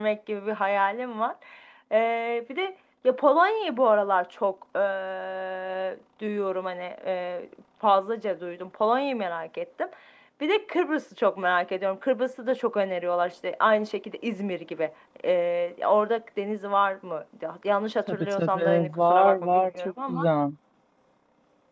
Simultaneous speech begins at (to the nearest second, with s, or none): 18 s